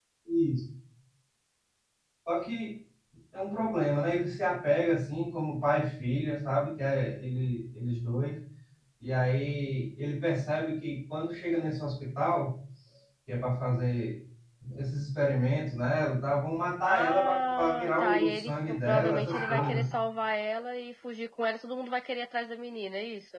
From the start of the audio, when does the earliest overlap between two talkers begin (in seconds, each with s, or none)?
16.9 s